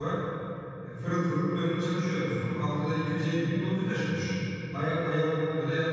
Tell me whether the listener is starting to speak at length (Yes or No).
No